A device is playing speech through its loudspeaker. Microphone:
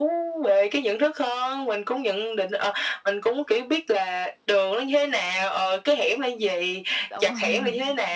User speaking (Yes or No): Yes